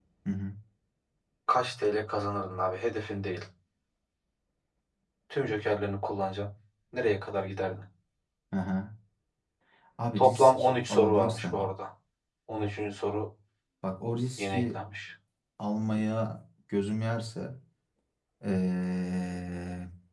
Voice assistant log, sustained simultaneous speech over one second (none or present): present